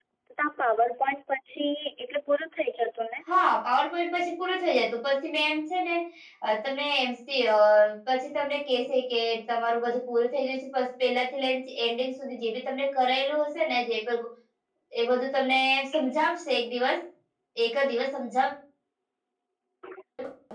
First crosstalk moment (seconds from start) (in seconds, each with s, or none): none